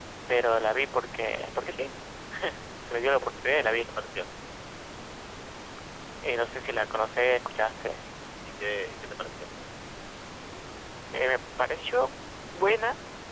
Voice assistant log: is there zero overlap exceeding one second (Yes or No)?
Yes